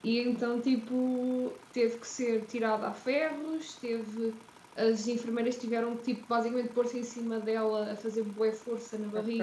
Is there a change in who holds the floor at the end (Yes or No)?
No